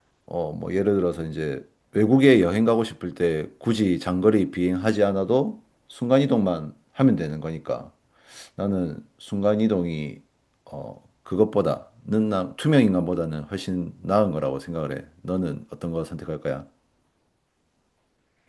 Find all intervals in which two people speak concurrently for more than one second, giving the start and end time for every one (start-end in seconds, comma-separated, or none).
none